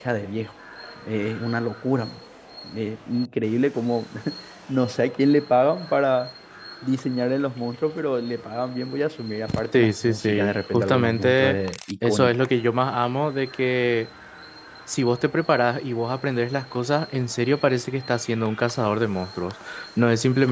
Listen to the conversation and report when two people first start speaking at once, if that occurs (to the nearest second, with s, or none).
10 s